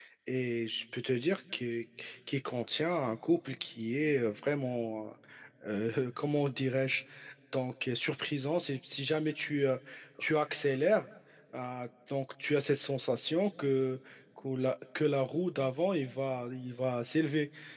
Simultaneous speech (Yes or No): No